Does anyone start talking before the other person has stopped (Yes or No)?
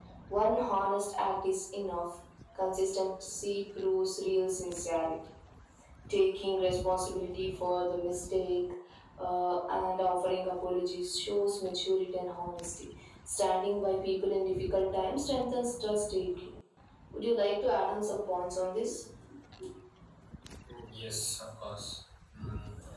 No